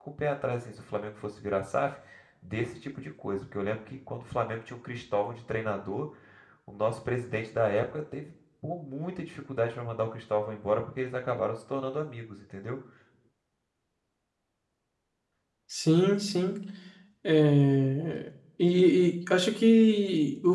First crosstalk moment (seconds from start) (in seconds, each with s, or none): none